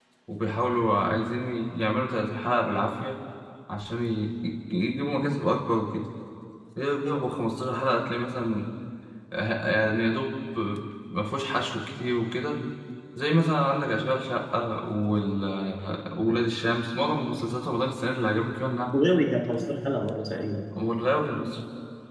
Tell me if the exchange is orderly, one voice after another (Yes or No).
Yes